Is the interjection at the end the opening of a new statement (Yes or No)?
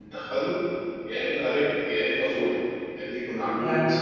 Yes